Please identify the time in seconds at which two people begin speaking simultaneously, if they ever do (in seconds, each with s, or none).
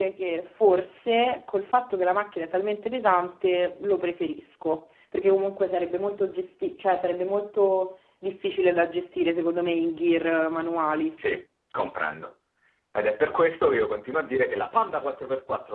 none